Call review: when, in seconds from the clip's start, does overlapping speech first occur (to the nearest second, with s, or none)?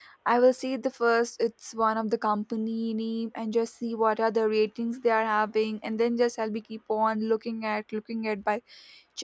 none